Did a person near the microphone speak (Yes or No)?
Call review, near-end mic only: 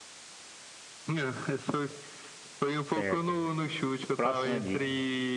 Yes